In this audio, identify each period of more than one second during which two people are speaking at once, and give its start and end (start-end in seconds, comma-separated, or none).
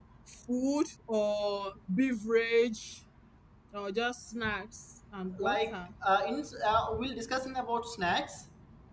none